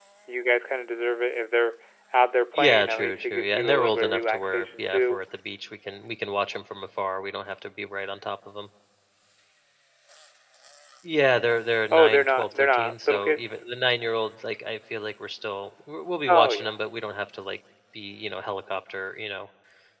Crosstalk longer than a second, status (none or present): present